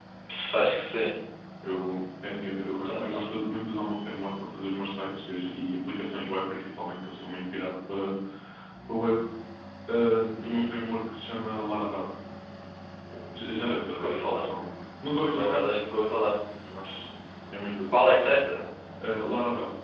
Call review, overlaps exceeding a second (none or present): none